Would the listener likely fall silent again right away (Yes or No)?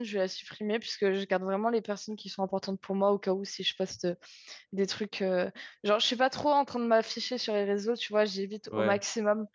Yes